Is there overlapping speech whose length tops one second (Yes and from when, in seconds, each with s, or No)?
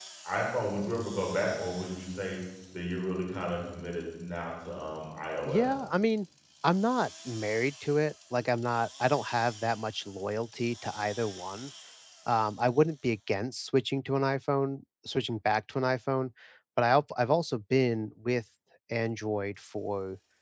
No